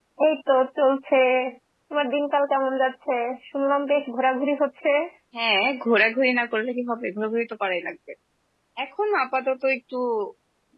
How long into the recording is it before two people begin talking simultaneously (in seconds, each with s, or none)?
none